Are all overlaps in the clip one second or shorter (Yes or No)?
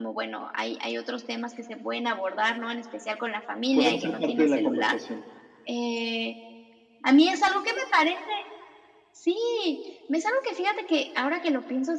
No